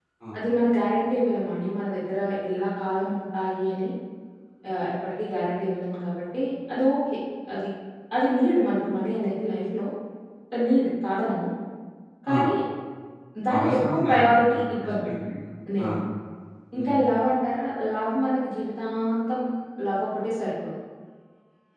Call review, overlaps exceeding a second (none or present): present